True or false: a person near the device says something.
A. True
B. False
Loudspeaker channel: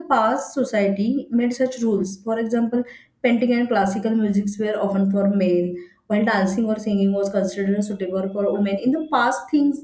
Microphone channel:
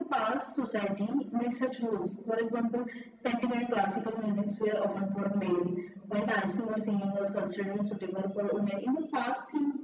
B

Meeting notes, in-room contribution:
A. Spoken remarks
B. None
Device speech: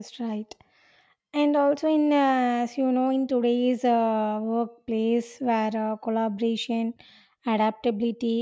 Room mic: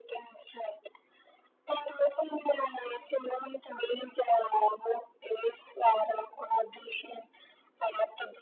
B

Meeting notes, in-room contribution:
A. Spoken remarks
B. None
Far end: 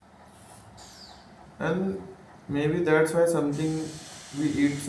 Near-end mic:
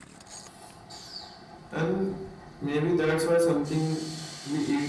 B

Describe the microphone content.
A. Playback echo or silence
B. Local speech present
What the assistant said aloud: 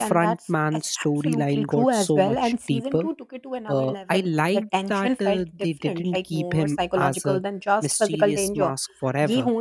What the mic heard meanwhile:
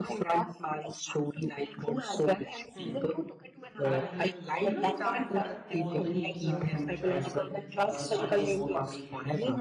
B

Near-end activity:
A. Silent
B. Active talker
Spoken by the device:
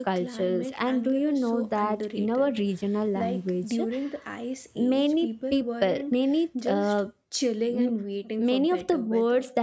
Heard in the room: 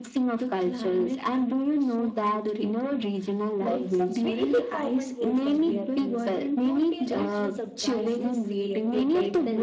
B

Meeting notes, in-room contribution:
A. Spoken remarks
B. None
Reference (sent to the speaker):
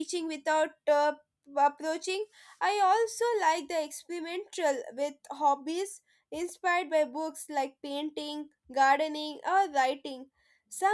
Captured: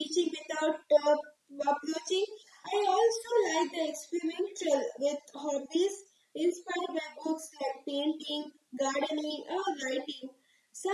B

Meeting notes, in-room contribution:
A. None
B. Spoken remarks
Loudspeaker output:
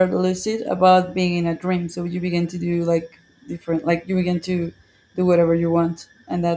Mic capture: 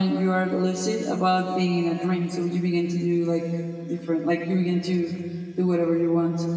A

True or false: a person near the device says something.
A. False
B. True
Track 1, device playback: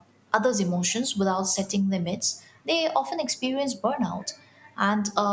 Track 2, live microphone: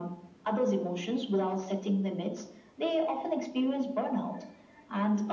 A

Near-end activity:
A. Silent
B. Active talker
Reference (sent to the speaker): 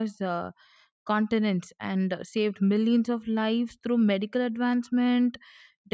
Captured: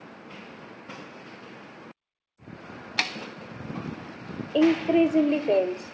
B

